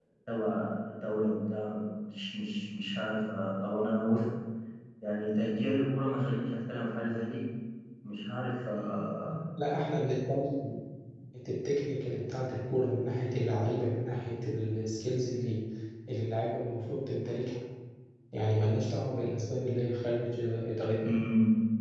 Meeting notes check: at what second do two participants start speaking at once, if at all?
none

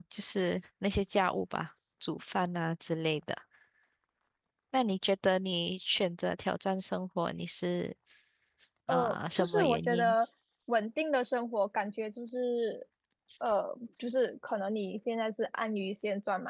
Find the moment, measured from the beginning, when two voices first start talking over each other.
8.9 s

